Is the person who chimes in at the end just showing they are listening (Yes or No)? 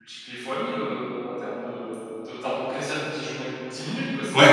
No